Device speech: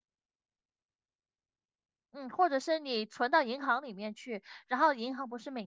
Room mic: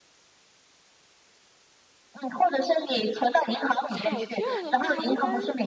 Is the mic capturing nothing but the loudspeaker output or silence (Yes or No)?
No